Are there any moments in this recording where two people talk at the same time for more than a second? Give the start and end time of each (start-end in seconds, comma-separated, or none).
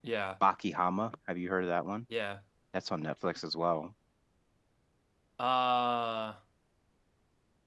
none